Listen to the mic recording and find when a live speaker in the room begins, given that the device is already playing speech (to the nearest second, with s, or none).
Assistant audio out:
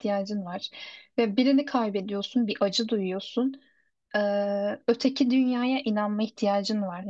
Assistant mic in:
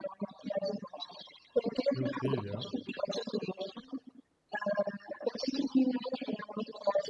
2 s